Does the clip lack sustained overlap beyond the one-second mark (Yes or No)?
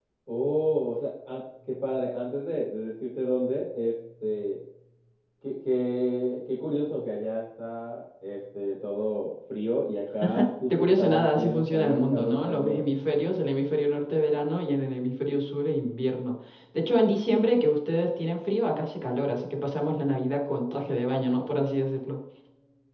No